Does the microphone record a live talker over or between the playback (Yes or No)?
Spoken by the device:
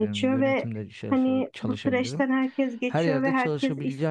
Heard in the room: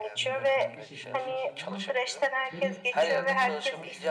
Yes